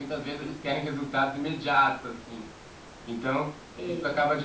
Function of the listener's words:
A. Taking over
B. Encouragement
B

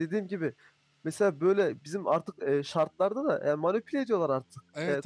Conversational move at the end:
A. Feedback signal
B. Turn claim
B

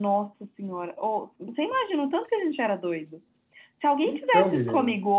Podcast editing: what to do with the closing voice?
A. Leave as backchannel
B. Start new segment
A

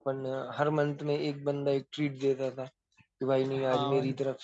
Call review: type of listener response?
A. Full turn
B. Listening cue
B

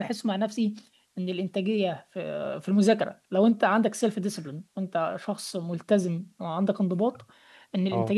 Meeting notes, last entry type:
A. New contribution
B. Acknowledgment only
B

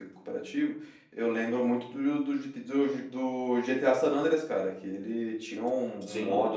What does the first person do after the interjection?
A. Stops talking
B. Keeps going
B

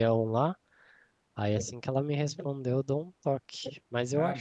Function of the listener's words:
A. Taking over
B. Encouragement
B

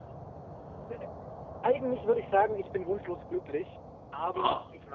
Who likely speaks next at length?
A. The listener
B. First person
B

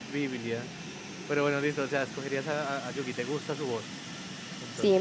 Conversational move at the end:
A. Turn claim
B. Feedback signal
A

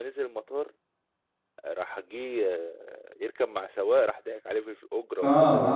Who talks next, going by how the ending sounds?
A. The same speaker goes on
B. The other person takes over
B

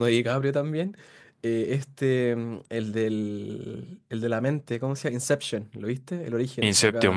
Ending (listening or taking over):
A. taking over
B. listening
A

